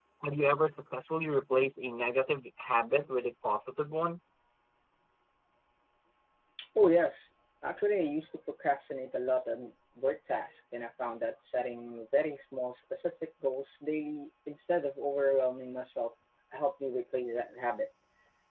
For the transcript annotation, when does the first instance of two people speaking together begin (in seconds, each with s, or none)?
none